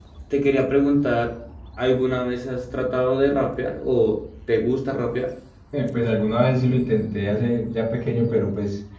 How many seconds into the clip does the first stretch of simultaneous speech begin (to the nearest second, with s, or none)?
none